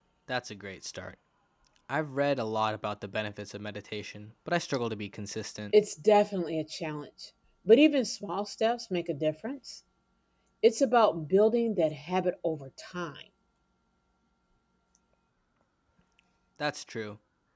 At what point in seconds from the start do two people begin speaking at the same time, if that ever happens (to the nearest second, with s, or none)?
none